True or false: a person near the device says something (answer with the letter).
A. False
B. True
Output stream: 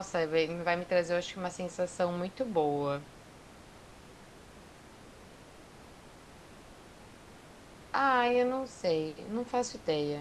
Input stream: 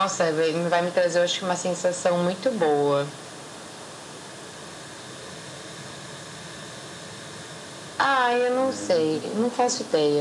B